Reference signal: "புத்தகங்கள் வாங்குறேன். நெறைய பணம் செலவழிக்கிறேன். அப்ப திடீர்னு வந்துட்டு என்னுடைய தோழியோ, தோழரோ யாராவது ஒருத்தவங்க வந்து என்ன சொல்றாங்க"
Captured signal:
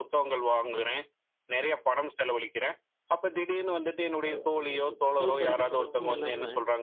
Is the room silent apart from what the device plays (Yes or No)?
No